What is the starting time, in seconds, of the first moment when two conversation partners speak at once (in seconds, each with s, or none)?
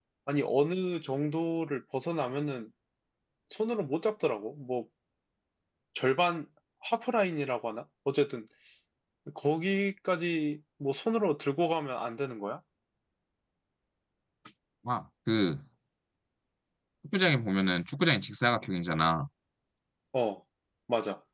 none